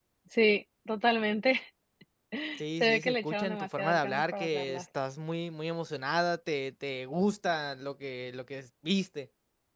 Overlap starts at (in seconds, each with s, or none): 2.8 s